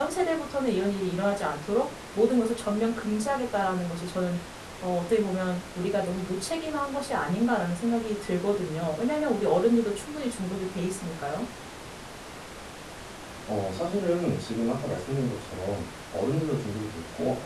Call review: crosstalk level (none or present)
none